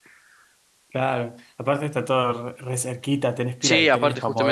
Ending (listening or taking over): taking over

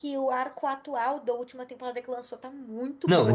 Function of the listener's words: taking over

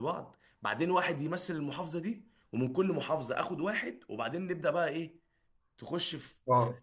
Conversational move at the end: taking over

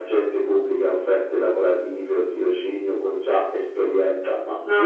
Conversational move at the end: listening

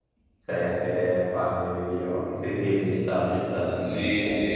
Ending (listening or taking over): taking over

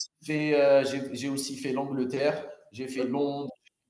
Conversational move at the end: listening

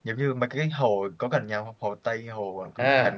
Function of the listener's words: taking over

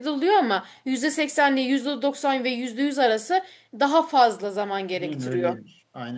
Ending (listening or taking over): taking over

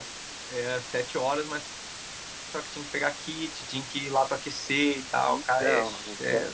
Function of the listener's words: taking over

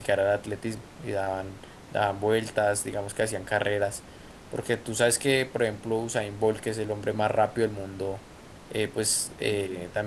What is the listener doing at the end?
listening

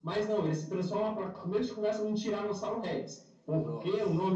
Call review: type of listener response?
listening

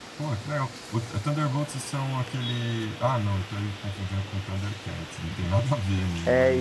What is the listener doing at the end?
taking over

